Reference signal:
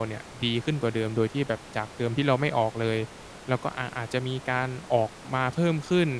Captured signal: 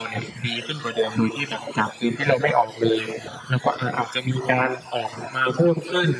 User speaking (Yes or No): No